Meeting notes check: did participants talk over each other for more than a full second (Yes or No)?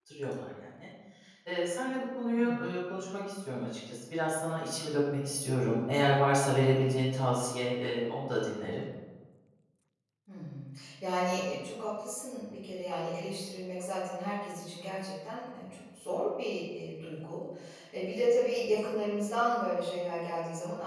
No